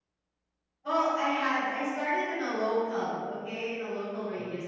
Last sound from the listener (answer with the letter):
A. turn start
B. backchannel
B